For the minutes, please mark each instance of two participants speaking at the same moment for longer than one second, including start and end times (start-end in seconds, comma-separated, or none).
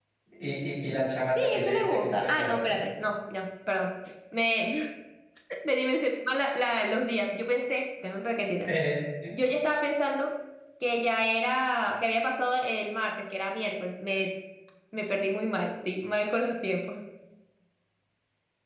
1.4-2.8